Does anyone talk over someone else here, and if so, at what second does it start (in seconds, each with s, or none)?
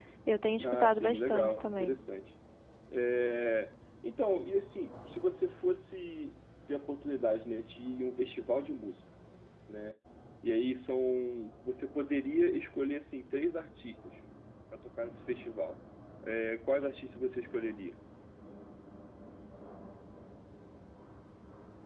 0.6 s